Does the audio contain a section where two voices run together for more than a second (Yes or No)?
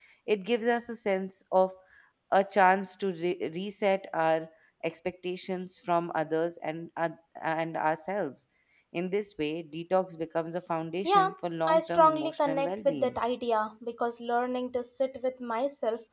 Yes